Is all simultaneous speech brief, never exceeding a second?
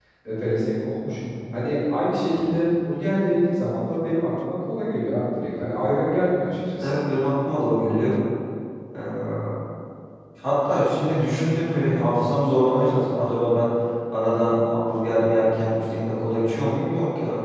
Yes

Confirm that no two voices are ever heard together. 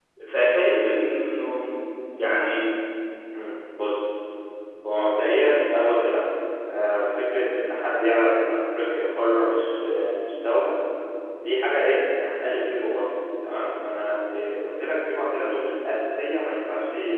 Yes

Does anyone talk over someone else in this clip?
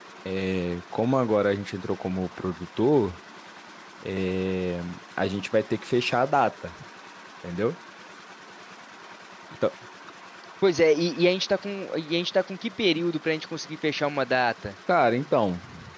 No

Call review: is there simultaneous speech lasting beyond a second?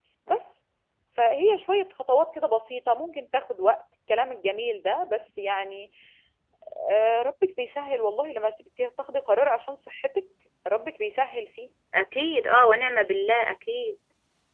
No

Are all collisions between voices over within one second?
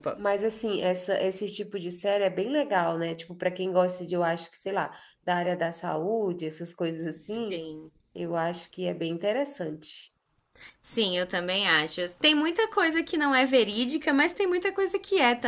Yes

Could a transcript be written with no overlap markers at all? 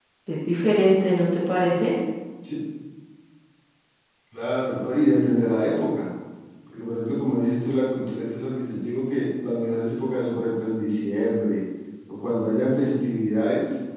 Yes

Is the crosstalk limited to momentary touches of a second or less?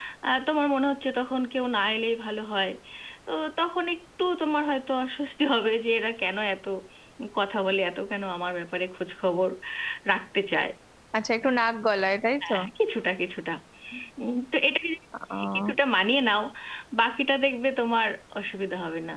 Yes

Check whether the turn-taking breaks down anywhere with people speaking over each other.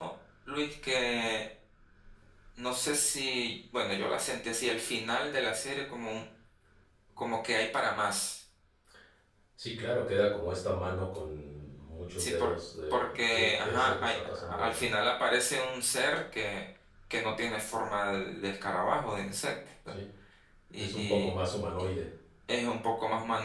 Yes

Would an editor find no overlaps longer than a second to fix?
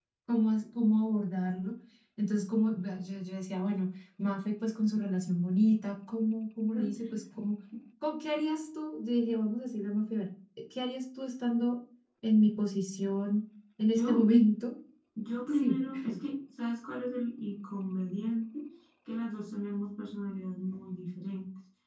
Yes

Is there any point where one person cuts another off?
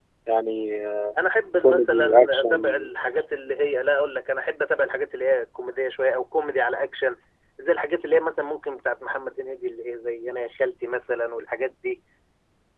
Yes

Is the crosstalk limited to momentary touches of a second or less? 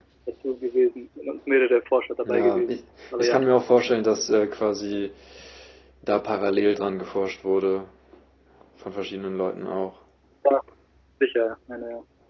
Yes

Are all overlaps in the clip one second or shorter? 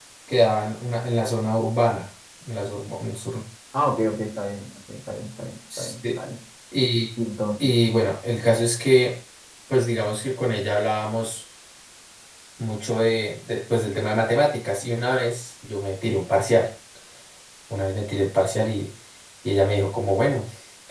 Yes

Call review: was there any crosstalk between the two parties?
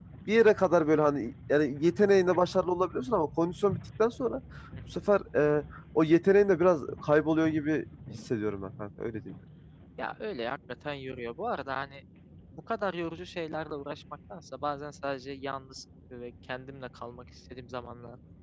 No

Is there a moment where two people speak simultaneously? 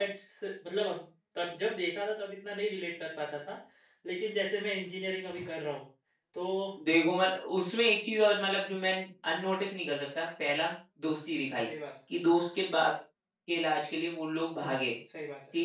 No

